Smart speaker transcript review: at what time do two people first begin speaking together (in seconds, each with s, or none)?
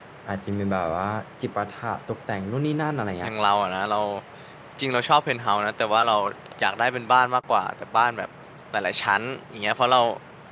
none